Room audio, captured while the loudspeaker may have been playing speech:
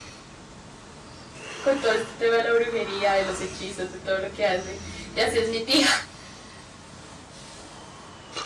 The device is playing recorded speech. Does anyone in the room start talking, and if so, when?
1.6 s

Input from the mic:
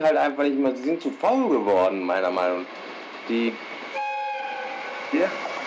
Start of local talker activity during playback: none

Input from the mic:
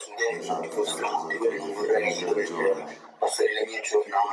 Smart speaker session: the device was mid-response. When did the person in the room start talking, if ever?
0.3 s

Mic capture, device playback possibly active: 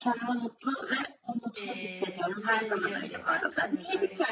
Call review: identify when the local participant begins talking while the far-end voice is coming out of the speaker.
1.6 s

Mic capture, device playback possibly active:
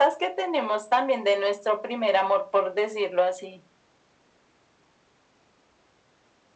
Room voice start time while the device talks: none

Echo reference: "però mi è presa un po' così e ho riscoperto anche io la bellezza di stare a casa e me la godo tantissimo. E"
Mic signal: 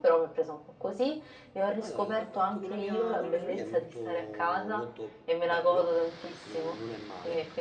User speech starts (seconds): 1.8 s

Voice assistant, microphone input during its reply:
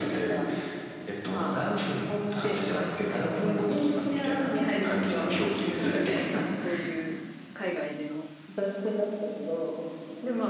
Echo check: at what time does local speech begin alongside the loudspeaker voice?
4.7 s

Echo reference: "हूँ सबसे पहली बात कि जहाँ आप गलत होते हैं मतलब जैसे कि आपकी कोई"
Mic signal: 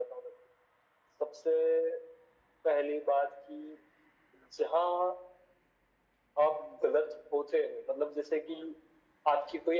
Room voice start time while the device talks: none

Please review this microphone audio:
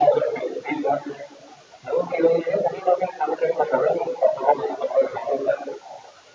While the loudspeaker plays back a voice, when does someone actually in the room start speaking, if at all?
none

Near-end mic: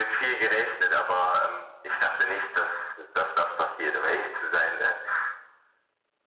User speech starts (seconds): none

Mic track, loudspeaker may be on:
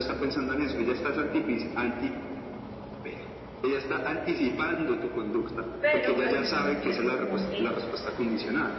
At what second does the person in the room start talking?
5.8 s

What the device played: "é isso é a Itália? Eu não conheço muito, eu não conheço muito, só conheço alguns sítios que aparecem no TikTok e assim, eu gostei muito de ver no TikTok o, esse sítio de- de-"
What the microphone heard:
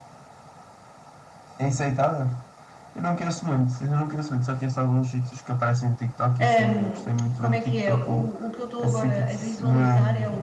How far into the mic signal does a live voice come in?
6.4 s

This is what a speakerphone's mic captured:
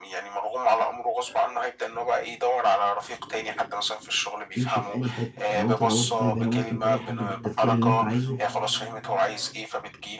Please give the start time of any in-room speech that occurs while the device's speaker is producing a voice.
4.5 s

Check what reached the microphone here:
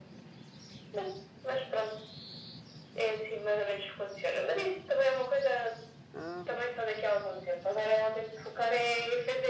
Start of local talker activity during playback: 6.1 s

